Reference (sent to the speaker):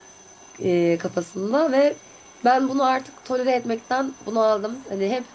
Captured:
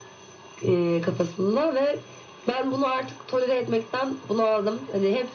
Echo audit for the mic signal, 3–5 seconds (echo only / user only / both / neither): echo only